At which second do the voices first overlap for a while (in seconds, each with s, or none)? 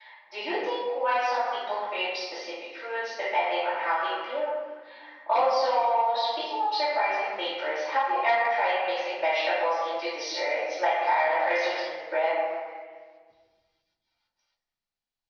none